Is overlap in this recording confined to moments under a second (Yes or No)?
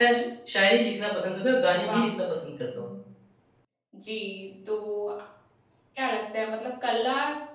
Yes